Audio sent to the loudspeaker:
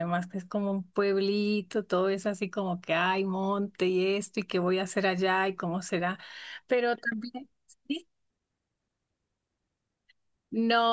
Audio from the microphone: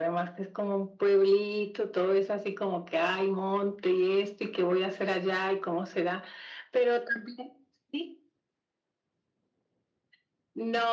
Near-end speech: none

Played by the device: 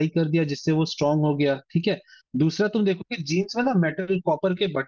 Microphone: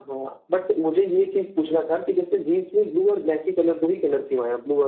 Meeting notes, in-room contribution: present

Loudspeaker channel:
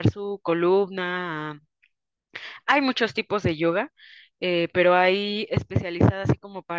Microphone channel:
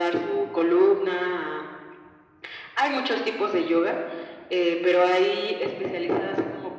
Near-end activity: none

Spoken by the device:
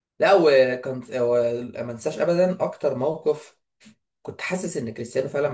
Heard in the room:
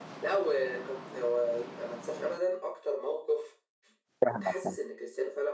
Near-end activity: present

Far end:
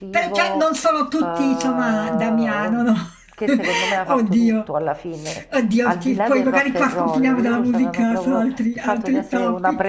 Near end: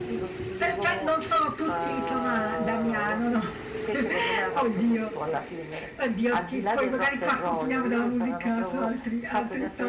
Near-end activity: none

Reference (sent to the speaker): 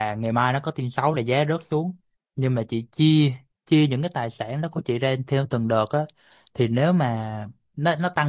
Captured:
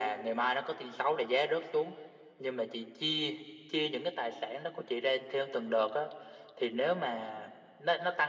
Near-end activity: none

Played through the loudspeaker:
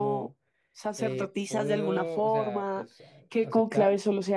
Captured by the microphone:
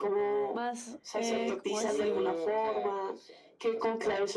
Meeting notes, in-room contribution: present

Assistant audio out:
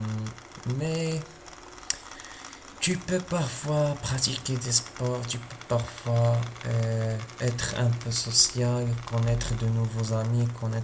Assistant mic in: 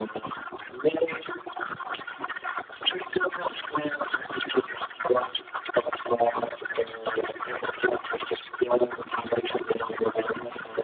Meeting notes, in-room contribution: none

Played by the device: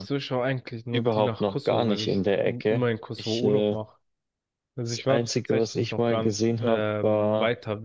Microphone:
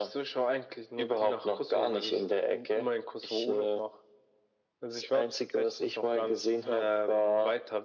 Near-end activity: none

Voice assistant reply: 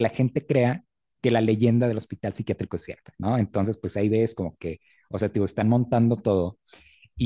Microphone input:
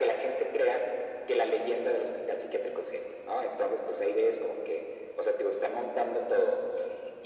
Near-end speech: none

